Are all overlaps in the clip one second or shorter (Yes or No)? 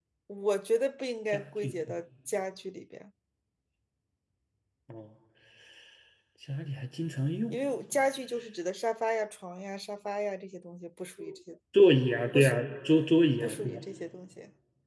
Yes